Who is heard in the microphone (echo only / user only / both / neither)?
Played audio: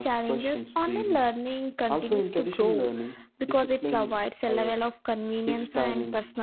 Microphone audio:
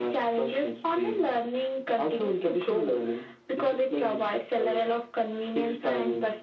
echo only